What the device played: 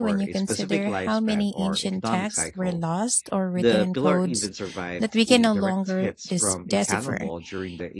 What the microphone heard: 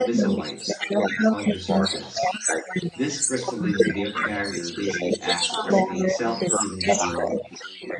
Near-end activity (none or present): present